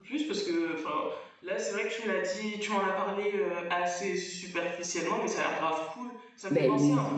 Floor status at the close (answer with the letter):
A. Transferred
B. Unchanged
A